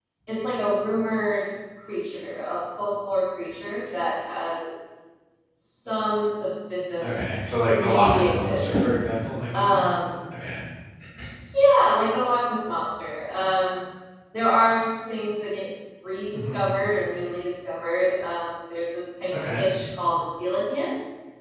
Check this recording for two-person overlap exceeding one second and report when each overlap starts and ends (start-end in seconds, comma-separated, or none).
7.0-8.8